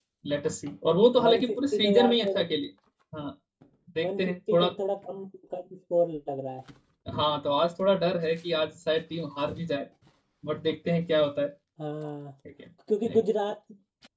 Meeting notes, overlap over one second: present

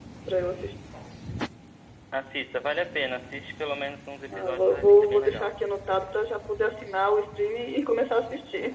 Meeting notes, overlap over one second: present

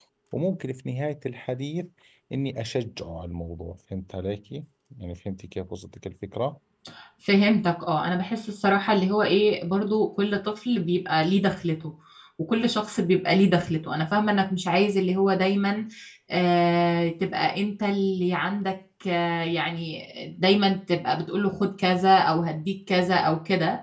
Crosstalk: none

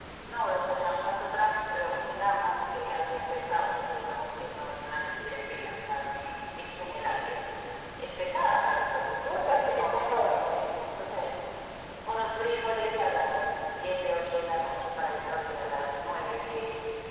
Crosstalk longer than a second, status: present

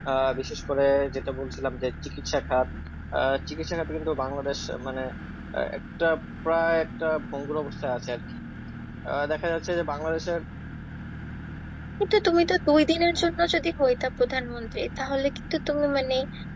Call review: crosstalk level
none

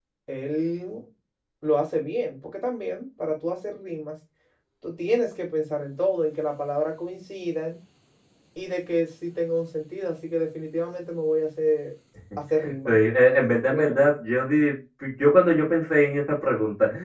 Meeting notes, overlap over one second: none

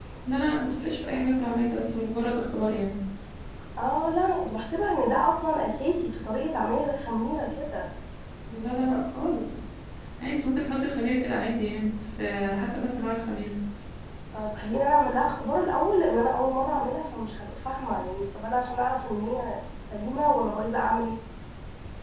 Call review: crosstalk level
none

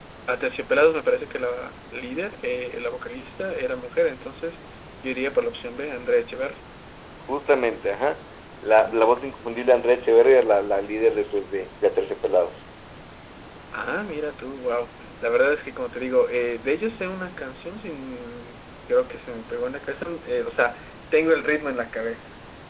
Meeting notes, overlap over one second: none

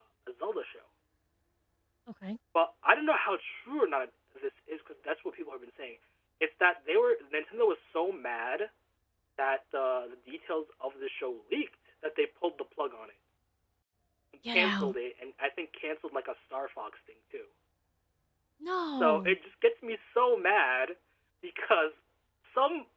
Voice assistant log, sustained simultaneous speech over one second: none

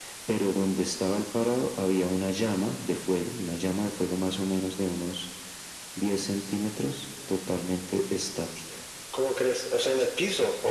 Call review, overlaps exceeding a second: none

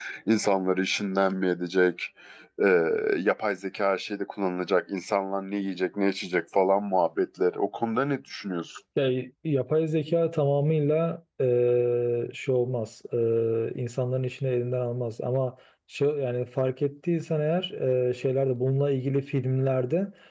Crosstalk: none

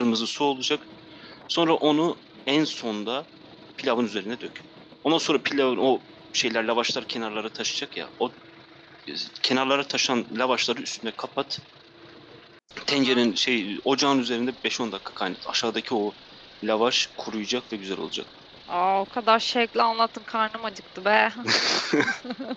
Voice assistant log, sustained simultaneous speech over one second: none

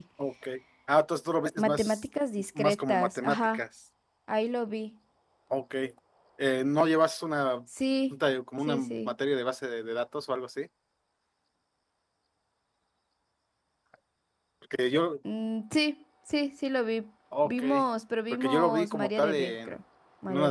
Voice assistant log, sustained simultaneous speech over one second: present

